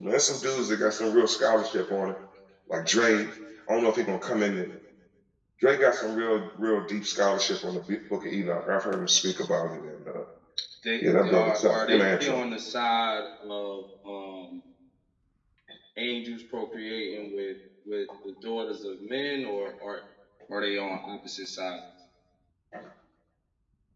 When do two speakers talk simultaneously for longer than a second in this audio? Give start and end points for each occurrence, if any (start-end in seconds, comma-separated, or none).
11.0-12.4